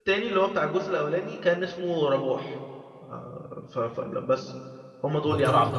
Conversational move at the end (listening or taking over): taking over